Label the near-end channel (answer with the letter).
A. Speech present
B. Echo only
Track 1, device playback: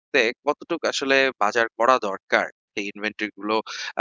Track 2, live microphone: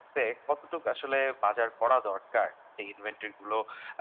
B